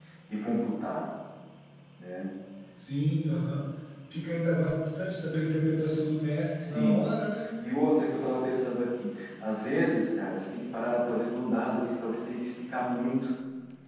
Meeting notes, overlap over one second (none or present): none